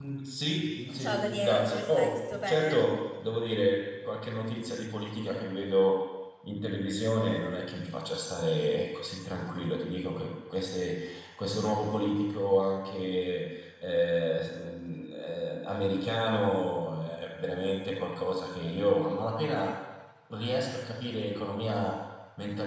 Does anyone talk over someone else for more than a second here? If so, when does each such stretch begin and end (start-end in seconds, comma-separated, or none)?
1.0-2.9